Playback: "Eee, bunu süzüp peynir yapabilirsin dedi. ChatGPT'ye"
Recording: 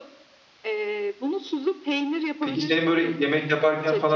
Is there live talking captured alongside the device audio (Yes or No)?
Yes